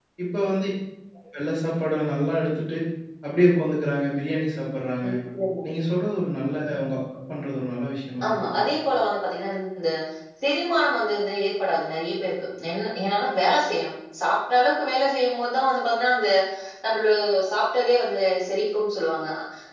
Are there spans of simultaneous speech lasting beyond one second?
No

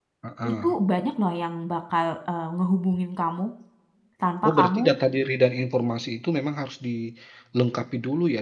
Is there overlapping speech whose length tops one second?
No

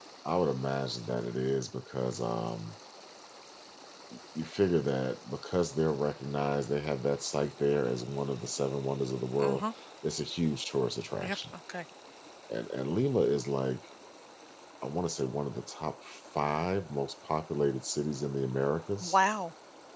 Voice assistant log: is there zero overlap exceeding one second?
Yes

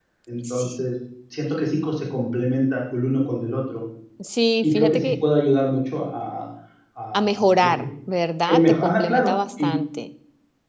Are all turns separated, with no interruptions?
No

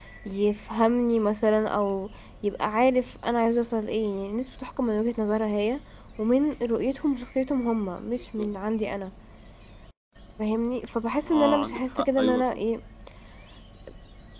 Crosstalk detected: Yes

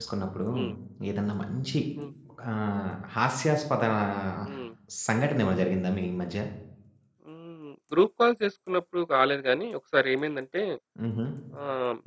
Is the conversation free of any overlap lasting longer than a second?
Yes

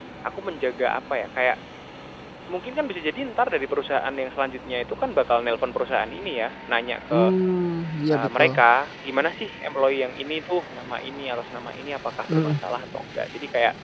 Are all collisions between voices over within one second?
Yes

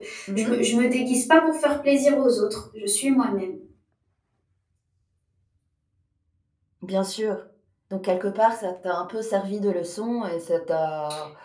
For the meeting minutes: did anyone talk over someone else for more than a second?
No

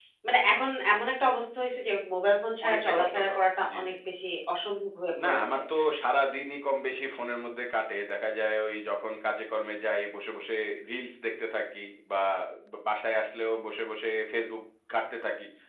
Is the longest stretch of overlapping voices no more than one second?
No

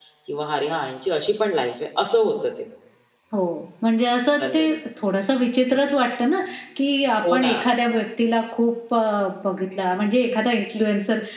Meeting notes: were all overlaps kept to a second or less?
Yes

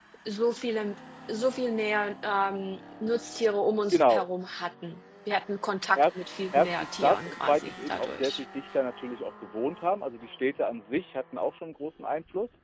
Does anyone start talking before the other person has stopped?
Yes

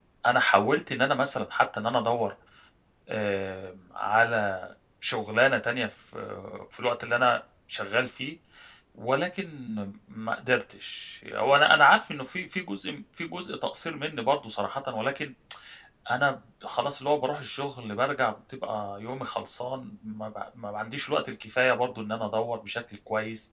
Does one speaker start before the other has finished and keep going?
No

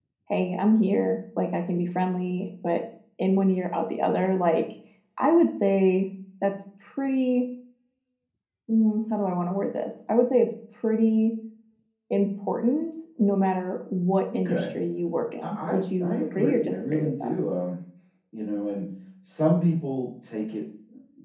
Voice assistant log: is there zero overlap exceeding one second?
No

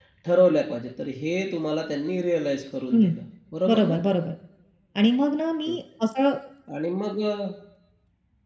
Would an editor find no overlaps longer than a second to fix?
Yes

